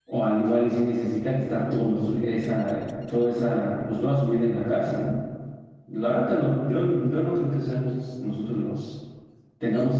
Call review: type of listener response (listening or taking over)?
listening